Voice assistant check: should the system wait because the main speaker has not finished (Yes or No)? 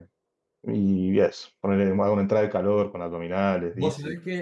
No